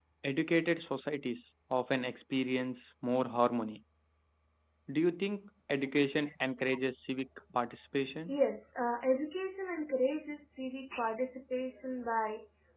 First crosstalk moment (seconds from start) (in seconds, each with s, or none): none